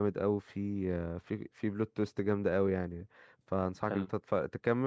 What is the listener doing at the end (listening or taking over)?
listening